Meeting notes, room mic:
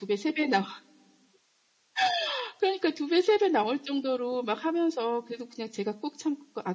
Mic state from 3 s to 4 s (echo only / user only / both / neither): echo only